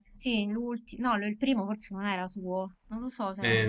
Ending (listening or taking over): taking over